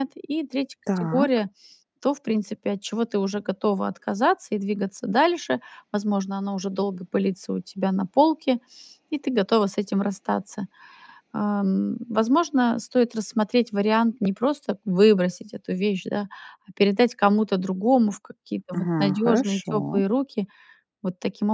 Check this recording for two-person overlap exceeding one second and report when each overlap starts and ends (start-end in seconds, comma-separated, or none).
18.8-20.0